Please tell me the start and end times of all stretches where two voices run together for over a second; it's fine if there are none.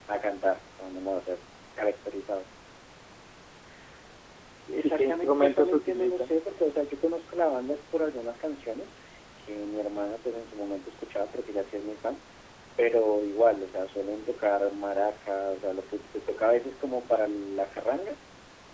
4.8-6.3

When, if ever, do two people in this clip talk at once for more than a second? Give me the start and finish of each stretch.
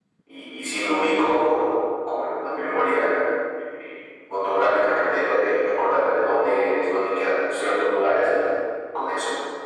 none

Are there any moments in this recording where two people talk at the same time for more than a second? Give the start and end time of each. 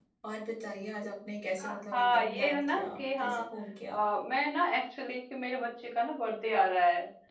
1.6-3.4

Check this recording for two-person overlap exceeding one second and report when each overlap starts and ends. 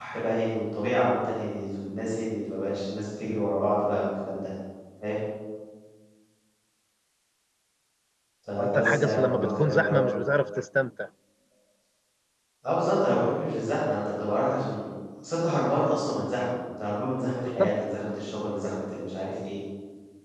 8.6-10.0

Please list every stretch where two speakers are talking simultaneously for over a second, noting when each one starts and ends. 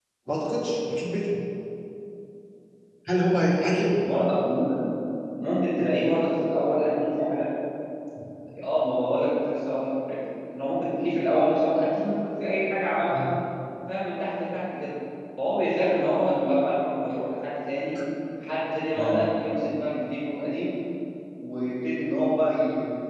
none

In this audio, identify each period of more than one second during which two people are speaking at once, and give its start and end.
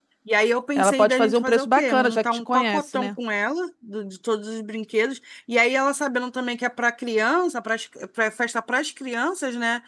0.8-3.1

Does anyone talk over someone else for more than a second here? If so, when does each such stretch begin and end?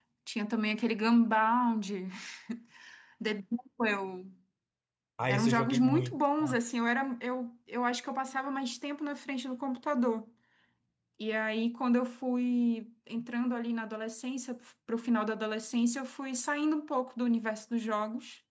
5.3-6.6

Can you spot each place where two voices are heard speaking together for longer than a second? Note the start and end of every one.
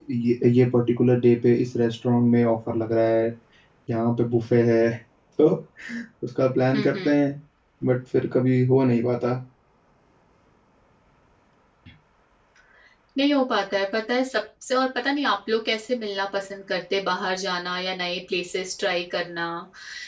none

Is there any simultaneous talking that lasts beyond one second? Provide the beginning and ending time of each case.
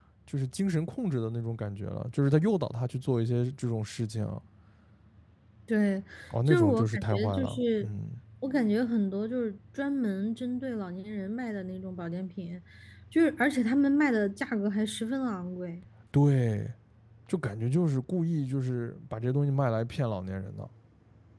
6.5-7.9

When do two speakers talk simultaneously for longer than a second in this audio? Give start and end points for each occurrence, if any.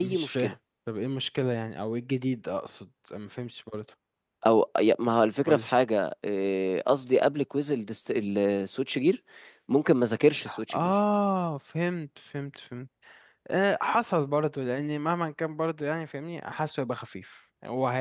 none

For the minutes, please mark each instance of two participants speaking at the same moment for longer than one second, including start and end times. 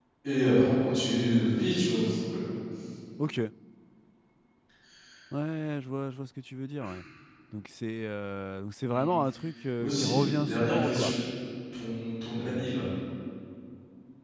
9.8-11.1

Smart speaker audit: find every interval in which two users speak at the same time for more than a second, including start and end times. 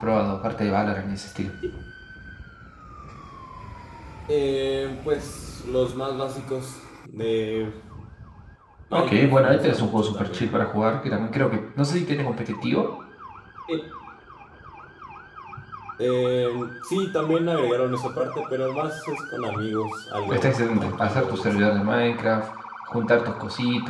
8.9-10.5, 20.2-21.5

